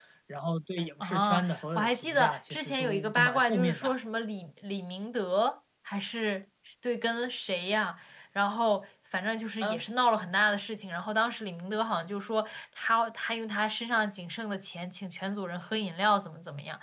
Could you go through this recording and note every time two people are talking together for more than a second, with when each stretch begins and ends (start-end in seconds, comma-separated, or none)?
1.0-3.9